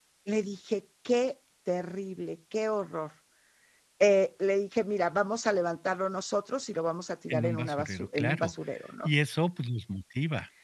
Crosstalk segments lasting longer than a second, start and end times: 7.3-8.5

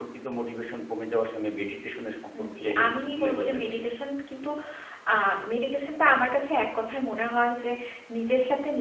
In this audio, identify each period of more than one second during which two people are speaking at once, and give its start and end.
2.4-3.9

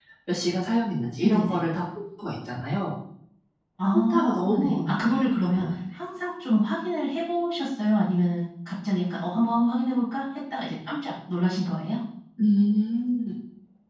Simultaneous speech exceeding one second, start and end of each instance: 3.9-5.6

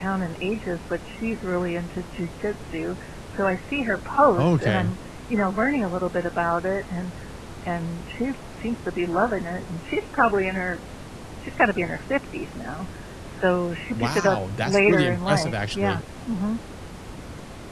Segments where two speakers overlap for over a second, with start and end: 13.9-16.0

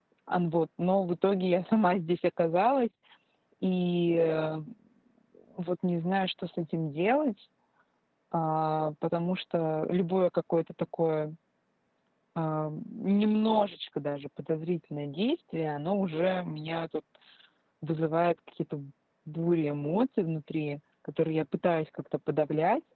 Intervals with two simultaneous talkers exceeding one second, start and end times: none

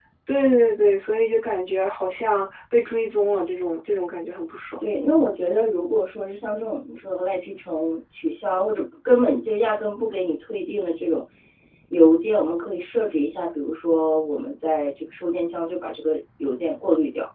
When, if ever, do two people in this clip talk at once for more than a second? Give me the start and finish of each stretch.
none

